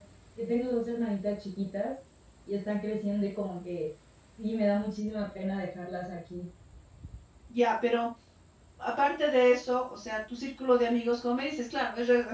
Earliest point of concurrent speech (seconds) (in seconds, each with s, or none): none